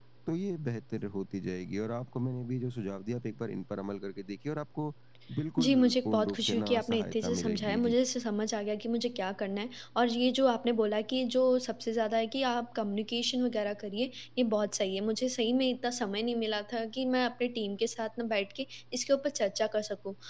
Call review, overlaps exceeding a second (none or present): present